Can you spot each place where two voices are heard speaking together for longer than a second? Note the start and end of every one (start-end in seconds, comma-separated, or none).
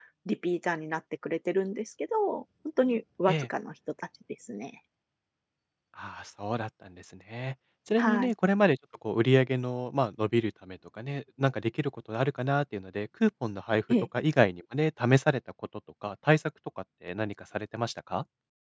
none